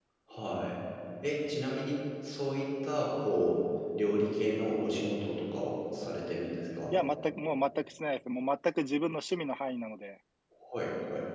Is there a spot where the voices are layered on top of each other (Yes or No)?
No